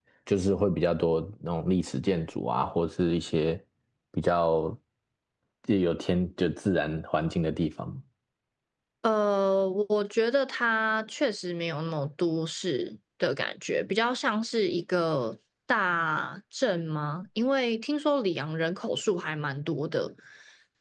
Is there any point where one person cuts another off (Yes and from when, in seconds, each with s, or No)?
No